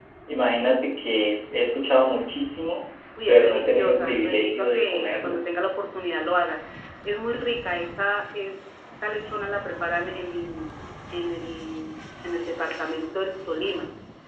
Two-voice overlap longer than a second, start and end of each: 3.3-5.4

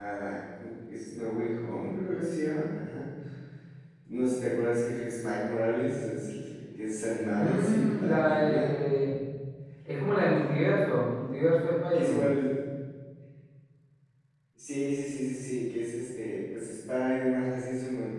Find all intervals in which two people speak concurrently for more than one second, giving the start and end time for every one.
7.4-8.7

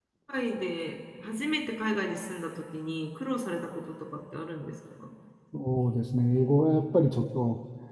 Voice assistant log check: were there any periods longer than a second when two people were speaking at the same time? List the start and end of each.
none

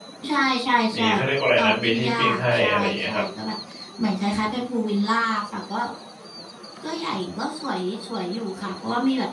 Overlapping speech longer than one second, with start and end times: 1.6-3.2

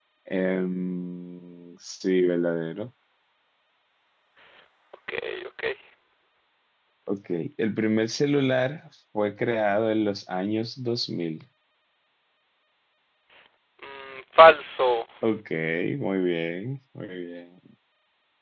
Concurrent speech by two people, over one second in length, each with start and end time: none

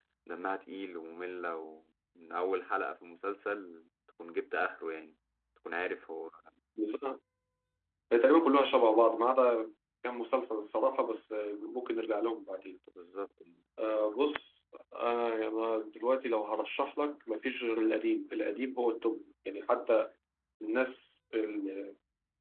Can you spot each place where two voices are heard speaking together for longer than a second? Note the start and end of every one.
none

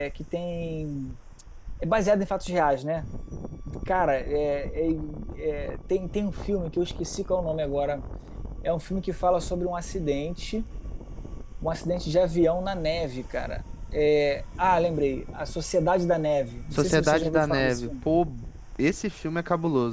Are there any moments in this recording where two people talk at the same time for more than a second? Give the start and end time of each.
16.7-17.9

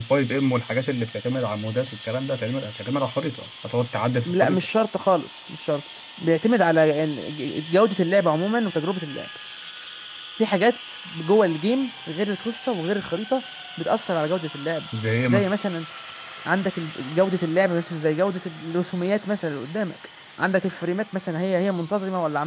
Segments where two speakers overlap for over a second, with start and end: none

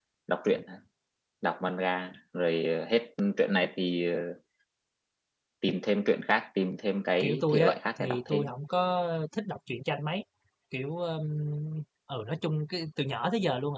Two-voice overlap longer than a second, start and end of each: 7.2-8.5

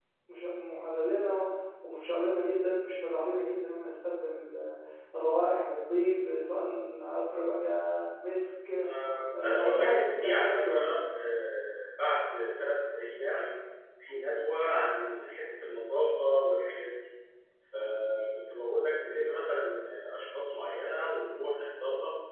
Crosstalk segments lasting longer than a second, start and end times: 9.4-10.8

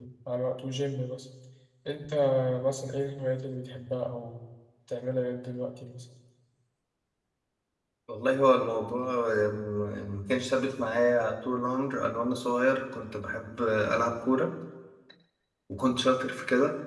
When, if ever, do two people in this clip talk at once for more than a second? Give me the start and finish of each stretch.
none

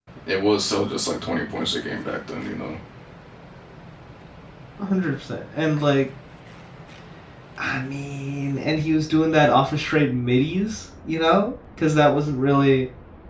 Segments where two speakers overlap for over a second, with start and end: none

